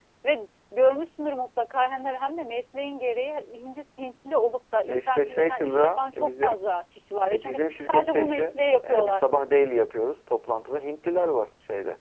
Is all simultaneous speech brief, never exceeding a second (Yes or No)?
No